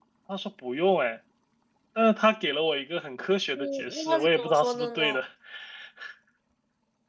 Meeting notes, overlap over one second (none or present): present